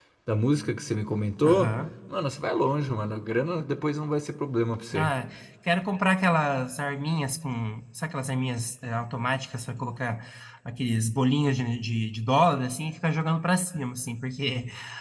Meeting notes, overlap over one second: none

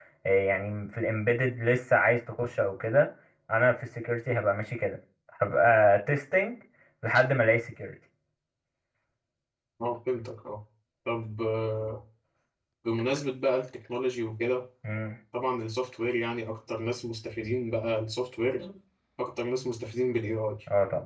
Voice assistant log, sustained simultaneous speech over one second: none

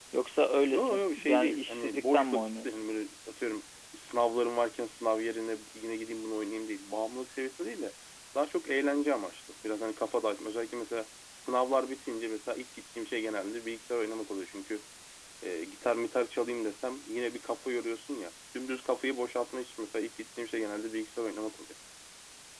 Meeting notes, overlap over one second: present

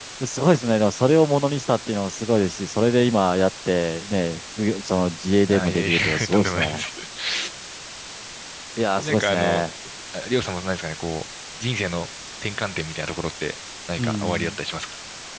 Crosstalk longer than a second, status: present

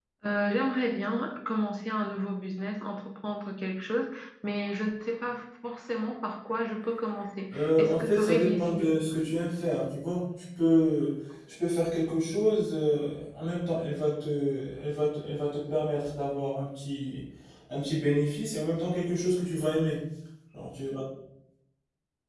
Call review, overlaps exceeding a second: present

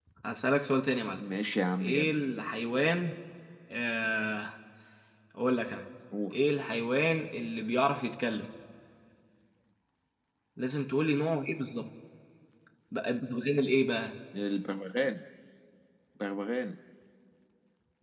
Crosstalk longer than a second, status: none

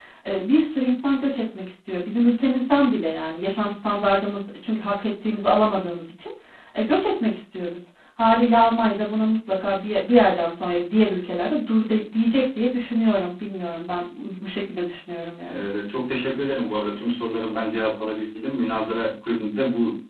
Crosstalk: none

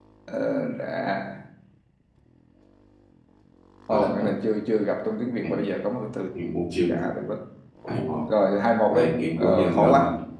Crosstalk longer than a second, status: present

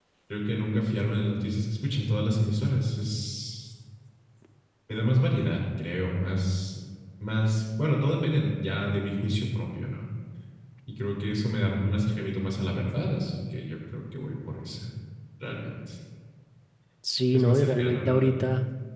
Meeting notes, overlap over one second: present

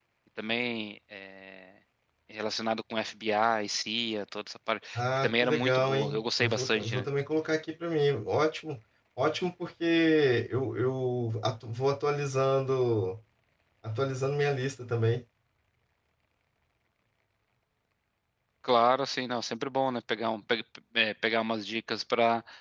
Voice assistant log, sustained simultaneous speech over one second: present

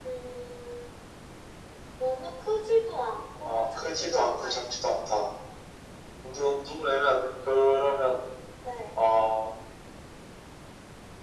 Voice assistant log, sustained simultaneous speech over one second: present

